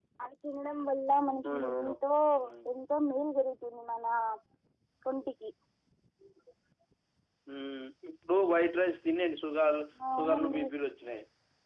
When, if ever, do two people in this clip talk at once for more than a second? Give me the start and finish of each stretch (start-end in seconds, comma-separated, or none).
none